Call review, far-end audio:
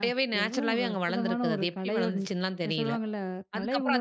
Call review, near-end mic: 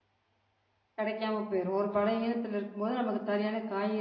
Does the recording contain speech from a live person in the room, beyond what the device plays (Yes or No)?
Yes